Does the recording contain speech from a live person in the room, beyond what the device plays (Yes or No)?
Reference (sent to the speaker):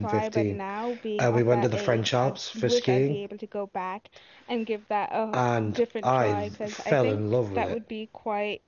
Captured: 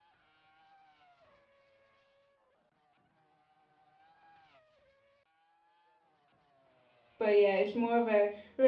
Yes